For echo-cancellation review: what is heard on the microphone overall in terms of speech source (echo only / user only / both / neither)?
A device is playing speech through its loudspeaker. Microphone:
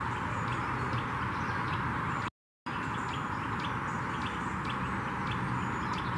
neither